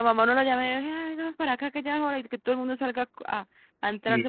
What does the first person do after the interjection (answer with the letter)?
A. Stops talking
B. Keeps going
A